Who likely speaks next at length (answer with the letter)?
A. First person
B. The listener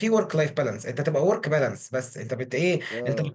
A